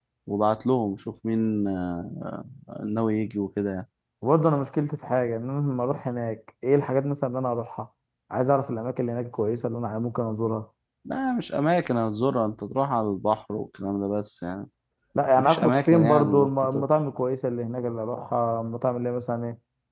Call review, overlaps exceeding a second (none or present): present